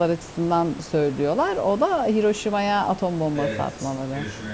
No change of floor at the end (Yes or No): No